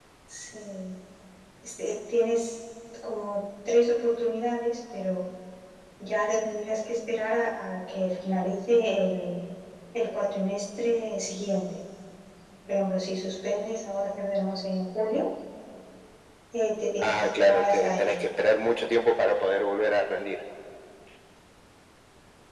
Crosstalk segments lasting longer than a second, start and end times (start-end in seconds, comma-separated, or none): 17.0-18.2